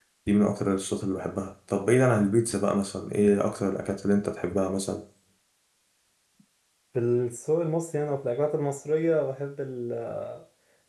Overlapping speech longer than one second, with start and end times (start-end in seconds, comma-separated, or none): none